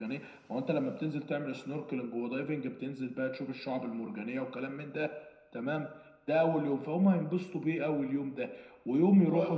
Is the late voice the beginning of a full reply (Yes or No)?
Yes